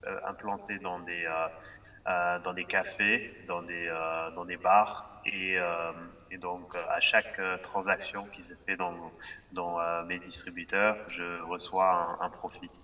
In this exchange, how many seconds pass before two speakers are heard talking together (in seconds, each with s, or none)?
none